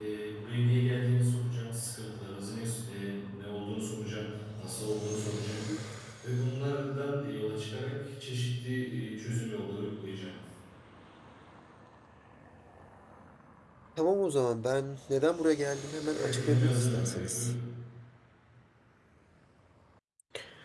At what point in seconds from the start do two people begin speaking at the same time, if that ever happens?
16 s

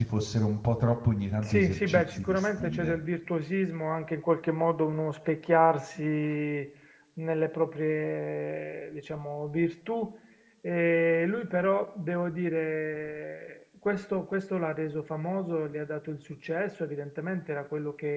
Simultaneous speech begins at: 1 s

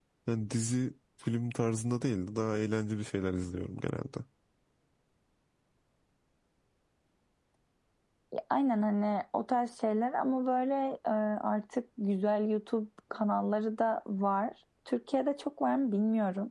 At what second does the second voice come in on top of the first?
none

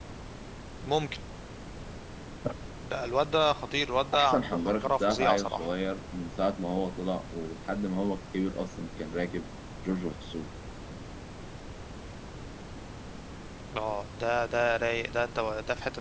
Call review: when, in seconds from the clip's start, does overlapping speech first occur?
4 s

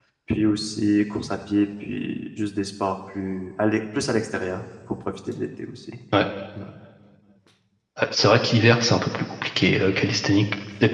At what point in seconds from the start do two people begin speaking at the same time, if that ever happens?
none

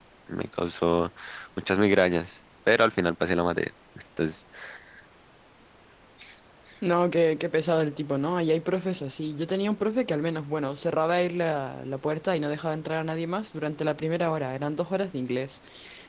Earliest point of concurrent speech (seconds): none

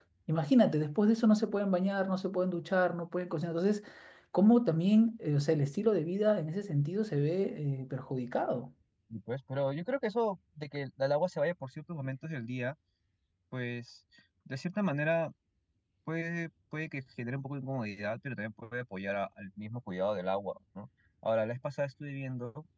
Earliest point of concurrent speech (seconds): none

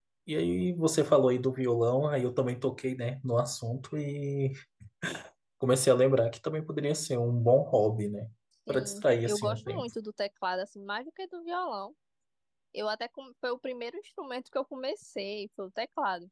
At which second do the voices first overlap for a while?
9 s

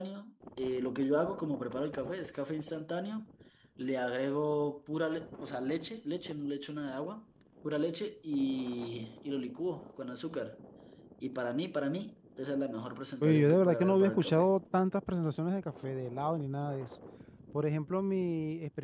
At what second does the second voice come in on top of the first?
13 s

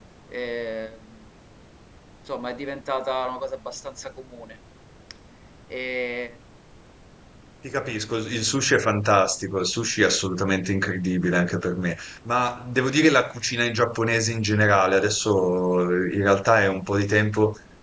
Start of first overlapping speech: none

